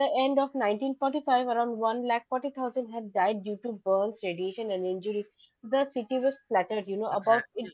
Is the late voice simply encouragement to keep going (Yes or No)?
Yes